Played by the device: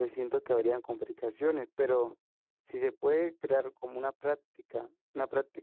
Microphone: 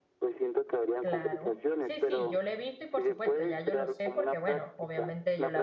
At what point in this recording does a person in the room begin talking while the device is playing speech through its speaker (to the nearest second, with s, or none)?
1 s